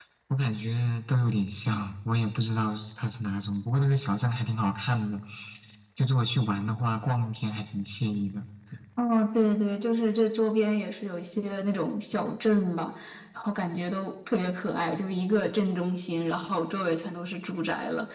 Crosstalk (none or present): none